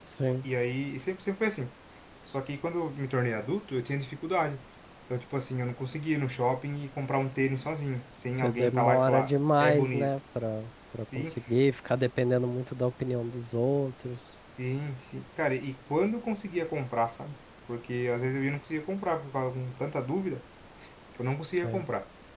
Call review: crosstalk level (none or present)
present